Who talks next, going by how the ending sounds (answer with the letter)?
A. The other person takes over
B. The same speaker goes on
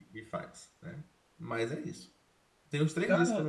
B